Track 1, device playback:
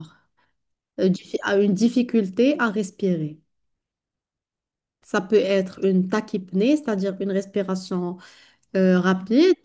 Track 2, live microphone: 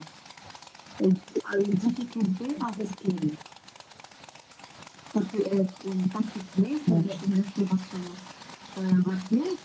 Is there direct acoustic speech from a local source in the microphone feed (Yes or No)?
Yes